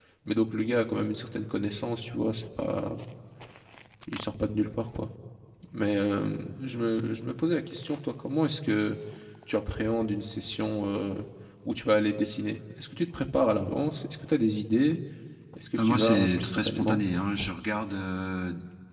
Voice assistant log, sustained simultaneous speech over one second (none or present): present